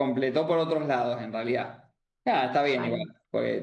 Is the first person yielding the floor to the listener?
No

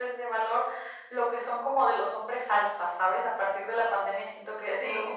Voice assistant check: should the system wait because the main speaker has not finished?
Yes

